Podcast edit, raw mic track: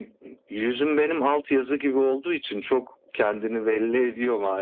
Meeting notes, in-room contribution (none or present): none